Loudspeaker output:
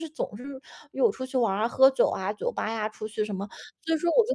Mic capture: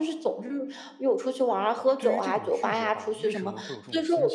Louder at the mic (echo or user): echo